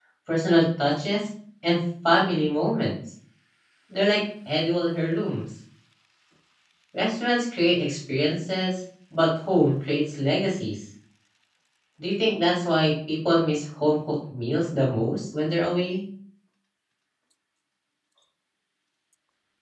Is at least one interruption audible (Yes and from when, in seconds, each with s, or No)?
No